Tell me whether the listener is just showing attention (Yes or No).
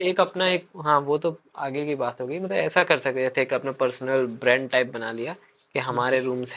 Yes